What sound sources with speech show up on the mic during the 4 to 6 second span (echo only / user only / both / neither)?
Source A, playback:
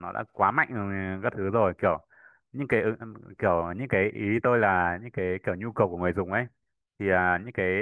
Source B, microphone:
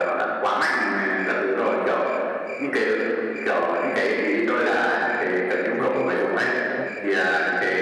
both